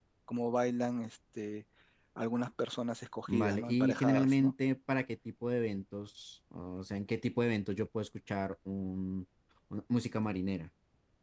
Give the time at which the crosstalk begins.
3.3 s

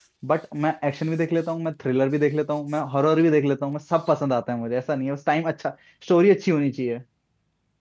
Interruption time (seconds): none

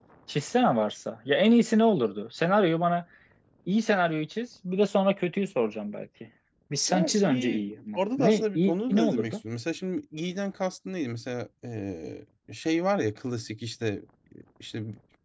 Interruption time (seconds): 6.9 s

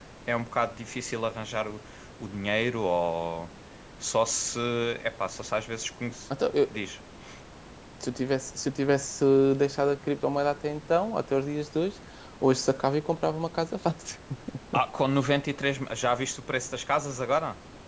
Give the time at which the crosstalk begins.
none

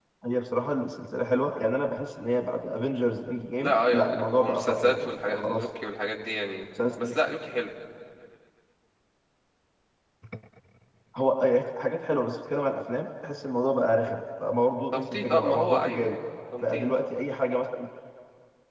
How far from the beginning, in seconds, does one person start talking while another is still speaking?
3.6 s

